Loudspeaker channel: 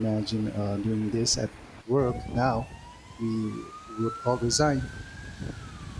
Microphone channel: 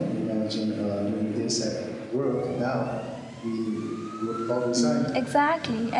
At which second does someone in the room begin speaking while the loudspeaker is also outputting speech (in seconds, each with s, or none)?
4.8 s